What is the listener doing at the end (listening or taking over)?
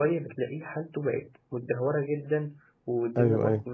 listening